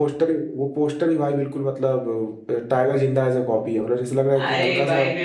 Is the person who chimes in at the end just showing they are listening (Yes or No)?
No